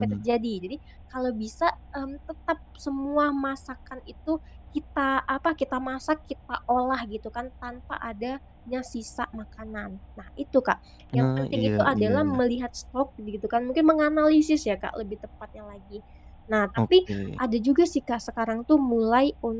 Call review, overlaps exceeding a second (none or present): present